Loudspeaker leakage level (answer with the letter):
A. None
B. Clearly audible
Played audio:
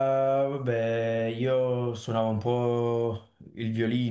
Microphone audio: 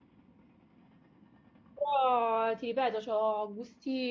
A